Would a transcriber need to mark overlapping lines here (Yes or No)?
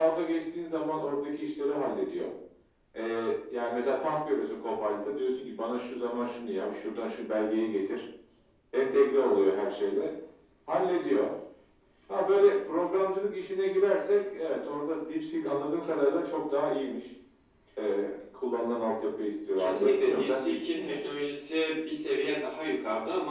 Yes